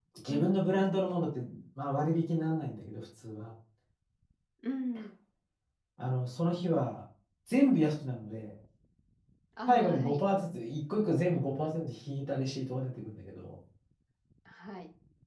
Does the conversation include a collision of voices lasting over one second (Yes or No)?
No